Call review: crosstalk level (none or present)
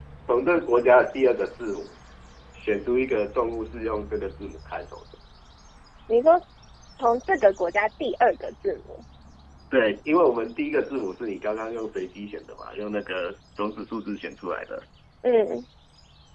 none